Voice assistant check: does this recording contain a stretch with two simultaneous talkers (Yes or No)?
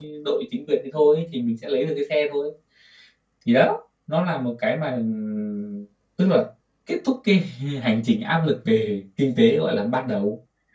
No